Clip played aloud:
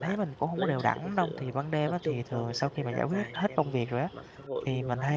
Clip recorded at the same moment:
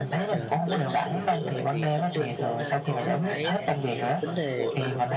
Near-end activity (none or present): present